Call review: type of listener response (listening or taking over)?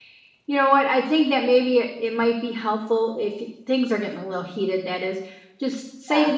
listening